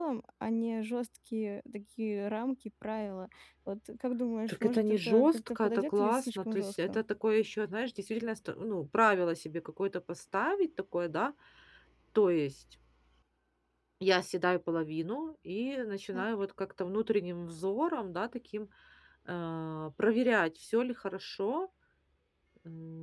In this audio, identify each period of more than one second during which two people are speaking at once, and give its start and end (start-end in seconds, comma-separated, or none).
4.5-7.0